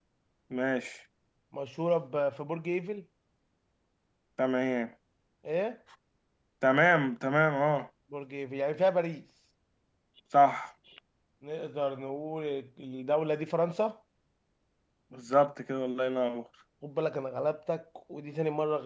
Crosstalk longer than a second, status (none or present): none